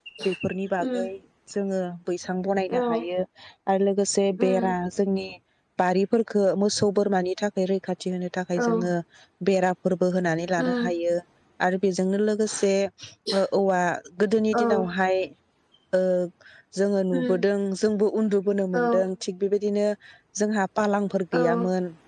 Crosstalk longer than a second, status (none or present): none